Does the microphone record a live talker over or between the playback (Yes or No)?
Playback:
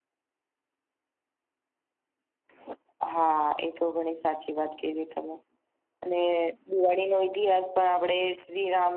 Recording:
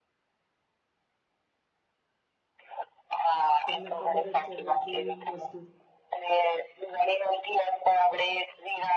Yes